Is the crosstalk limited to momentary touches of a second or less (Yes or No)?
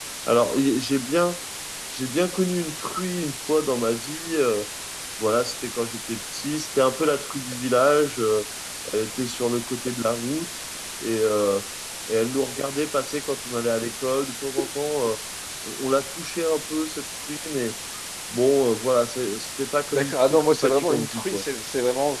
No